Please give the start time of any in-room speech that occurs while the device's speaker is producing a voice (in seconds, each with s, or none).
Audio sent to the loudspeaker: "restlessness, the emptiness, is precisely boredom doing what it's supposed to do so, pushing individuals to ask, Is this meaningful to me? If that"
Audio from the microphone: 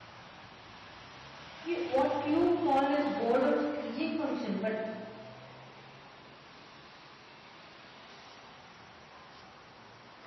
1.6 s